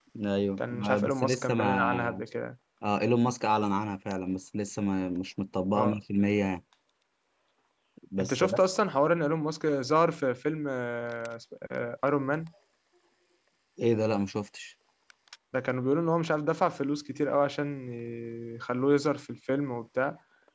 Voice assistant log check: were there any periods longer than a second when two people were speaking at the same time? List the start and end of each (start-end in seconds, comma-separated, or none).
0.6-2.2